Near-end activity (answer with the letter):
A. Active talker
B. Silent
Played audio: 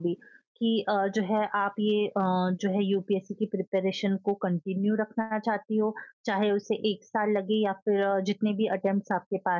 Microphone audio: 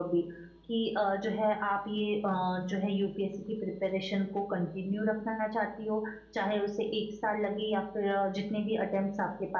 B